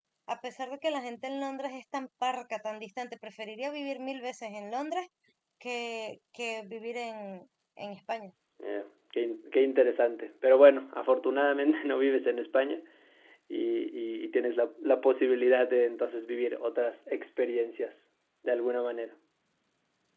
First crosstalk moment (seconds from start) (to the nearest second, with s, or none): none